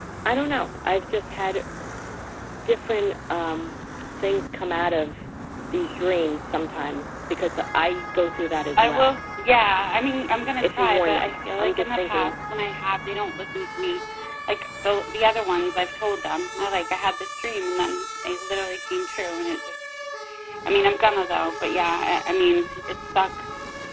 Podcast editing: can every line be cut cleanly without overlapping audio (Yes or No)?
No